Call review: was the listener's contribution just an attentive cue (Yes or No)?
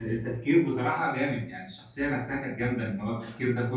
Yes